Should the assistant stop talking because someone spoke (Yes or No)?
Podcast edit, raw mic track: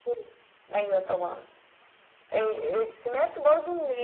No